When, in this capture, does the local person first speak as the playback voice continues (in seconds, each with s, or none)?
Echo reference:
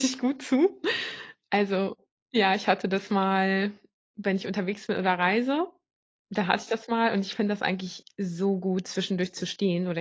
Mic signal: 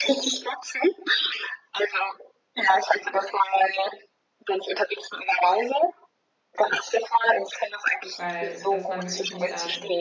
8.2 s